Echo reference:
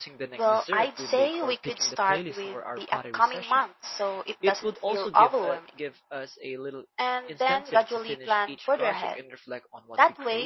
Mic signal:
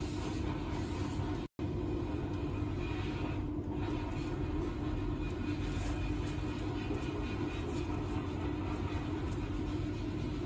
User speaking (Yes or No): No